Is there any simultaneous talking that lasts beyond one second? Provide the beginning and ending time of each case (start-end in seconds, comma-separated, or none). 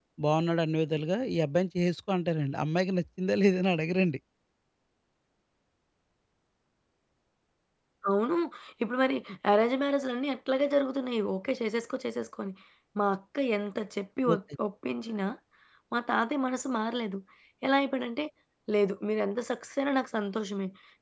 none